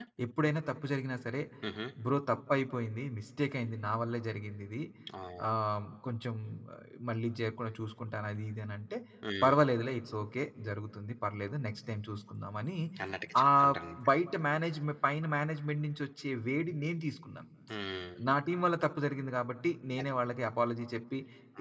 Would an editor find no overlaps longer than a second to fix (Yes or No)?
Yes